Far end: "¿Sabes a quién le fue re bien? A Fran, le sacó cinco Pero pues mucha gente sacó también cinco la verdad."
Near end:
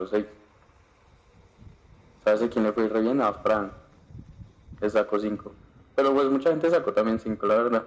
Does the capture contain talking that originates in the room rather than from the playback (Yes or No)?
No